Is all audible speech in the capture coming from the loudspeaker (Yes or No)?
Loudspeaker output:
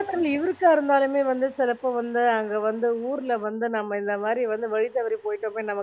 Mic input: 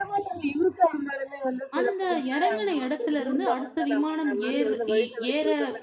No